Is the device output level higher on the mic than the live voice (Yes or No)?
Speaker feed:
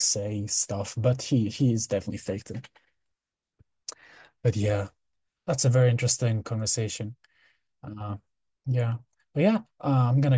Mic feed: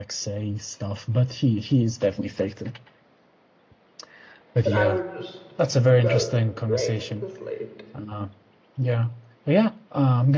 Yes